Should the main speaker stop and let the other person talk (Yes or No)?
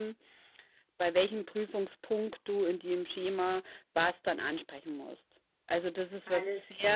No